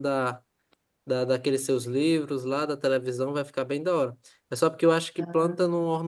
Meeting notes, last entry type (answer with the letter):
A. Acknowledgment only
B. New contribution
A